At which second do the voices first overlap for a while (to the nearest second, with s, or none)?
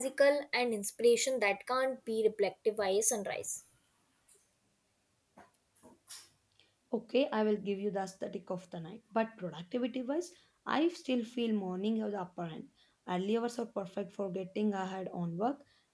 none